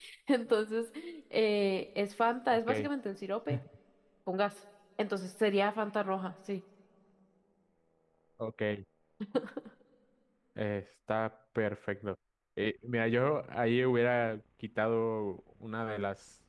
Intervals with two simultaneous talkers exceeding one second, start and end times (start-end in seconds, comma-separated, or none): none